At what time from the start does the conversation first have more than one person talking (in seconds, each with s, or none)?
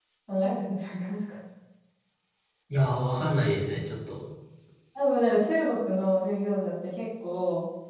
none